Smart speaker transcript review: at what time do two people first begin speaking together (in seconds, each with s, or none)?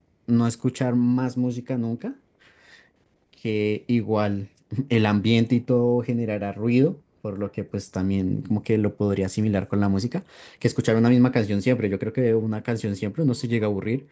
none